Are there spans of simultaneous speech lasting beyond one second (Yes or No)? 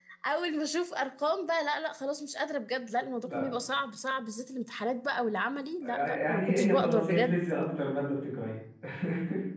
Yes